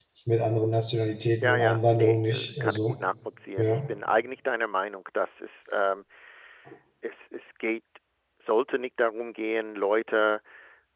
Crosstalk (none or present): present